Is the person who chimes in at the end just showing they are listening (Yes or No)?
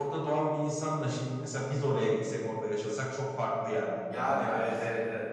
No